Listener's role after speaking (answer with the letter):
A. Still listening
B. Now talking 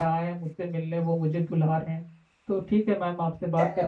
A